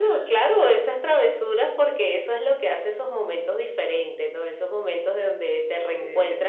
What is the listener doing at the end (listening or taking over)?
listening